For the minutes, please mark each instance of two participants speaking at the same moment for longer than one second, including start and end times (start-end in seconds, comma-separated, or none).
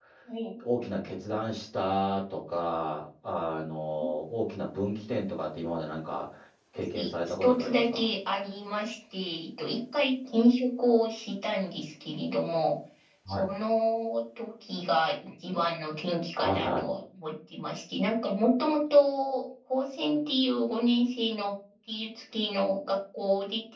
6.8-8.0